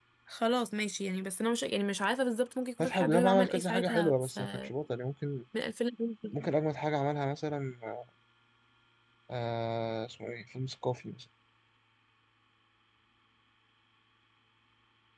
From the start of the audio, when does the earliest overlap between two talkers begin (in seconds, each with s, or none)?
2.8 s